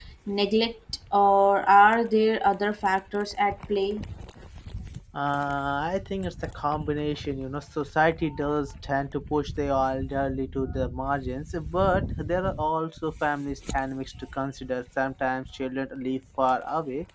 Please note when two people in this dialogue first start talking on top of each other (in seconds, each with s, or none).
none